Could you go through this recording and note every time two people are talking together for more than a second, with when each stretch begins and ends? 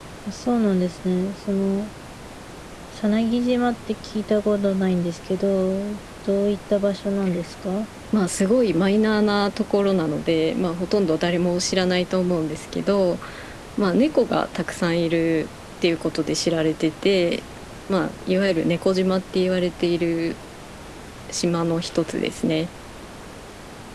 none

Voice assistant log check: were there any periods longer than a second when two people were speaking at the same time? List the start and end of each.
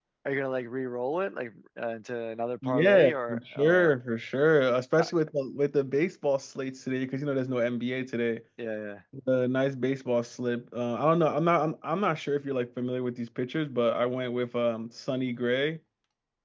2.6-3.9

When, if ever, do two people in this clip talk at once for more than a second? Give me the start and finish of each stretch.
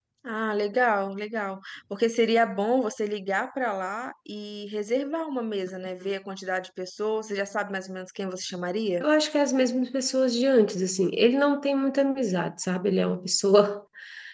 none

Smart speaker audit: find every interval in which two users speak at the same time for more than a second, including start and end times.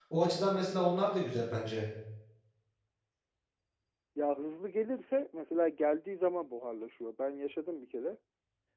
none

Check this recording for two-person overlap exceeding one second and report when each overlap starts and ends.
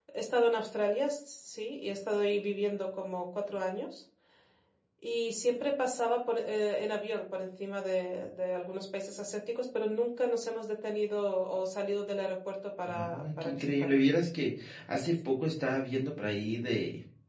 12.9-14.1

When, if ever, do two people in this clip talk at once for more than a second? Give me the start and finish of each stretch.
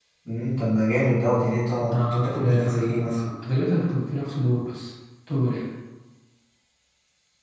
1.9-3.2

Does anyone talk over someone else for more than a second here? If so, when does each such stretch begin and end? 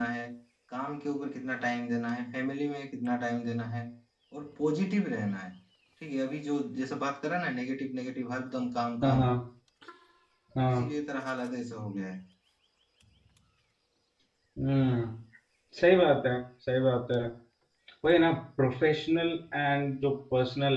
none

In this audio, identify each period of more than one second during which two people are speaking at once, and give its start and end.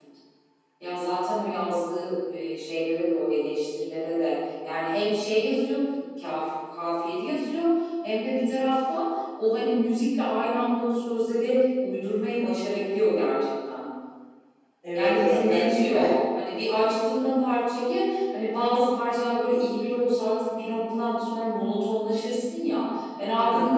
14.9-16.1

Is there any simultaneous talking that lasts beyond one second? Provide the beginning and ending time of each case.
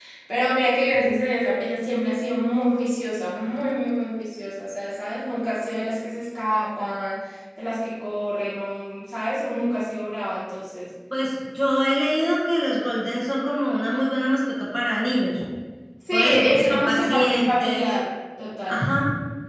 16.1-17.9

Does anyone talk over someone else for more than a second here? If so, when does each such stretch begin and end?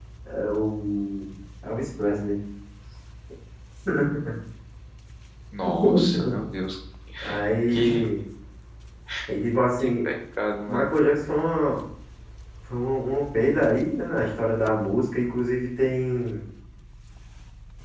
none

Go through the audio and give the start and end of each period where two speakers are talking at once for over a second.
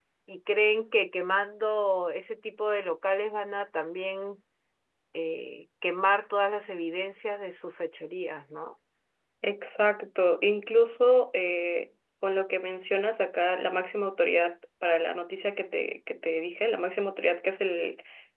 none

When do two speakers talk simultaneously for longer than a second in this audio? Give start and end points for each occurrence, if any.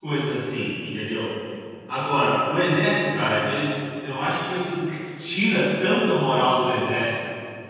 none

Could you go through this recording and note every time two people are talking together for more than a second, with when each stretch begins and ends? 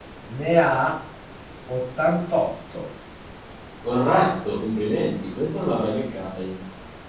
none

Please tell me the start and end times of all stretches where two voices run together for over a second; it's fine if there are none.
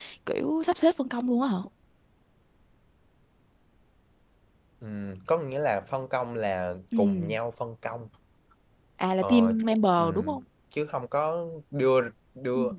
none

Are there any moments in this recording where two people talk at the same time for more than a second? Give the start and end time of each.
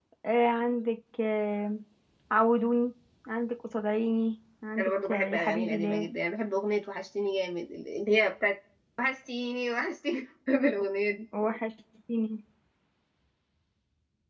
4.8-6.1

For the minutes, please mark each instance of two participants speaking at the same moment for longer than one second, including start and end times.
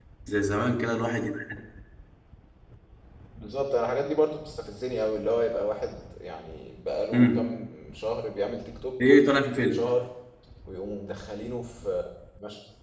none

